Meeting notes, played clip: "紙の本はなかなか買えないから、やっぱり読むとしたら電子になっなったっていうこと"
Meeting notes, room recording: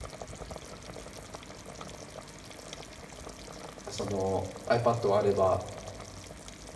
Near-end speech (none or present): present